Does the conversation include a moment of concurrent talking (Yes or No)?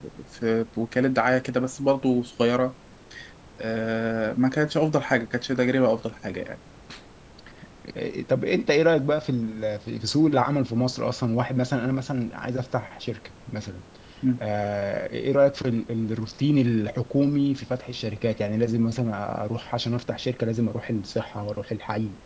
No